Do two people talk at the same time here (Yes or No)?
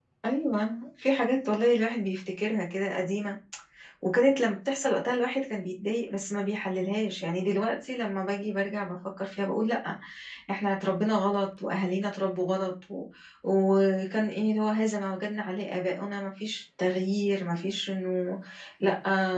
No